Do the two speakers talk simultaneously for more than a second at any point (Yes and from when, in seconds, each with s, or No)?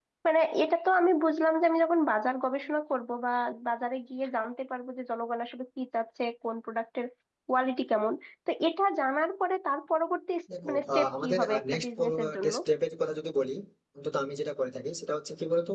Yes, from 10.5 s